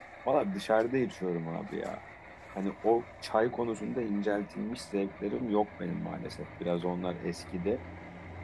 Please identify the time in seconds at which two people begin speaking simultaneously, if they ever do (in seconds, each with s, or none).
none